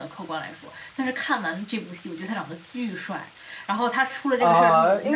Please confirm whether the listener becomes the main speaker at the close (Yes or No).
Yes